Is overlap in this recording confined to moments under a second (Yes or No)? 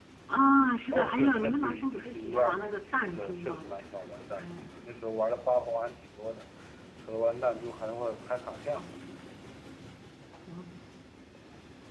No